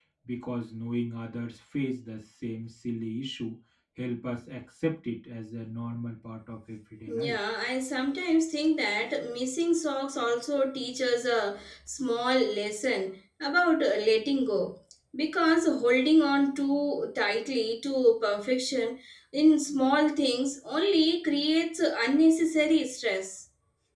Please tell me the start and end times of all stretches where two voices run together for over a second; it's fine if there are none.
none

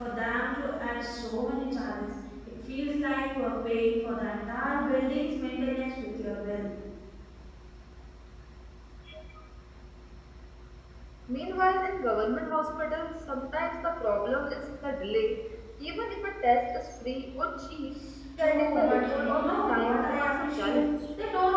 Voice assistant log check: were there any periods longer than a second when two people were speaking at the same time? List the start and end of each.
18.4-20.8

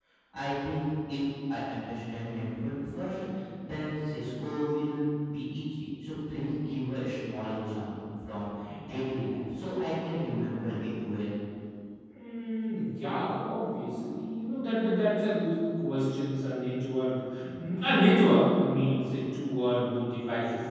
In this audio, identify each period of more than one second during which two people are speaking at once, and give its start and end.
none

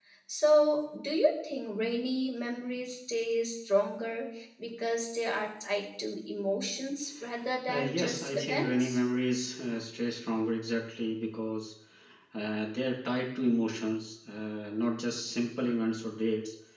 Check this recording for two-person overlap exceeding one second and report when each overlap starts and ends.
7.7-9.0

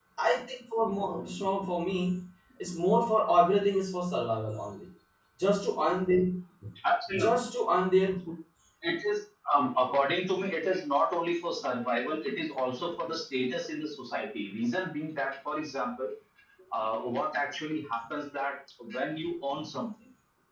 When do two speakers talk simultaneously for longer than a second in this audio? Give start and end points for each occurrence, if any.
none

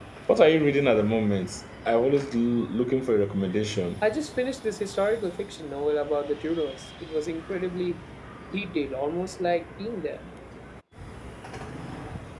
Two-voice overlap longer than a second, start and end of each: none

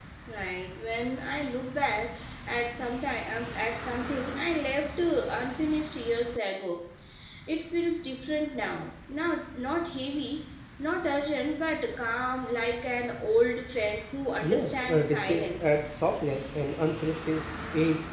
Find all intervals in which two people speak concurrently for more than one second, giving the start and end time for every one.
14.4-15.7

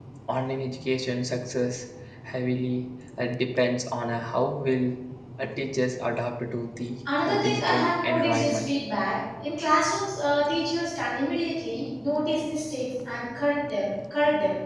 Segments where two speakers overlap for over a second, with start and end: 7.2-8.8

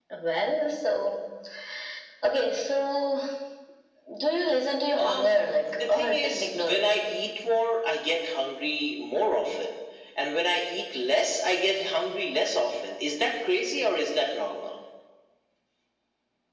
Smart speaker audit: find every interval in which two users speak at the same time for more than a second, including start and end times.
4.9-6.9

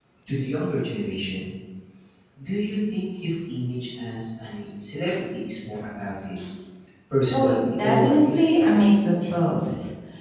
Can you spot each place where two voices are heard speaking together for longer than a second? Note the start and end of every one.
7.3-8.9

